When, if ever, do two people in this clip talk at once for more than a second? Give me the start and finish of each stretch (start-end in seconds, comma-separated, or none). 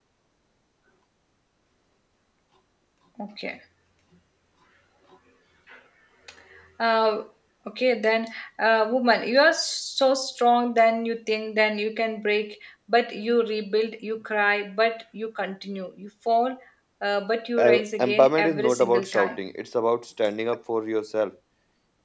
17.6-19.4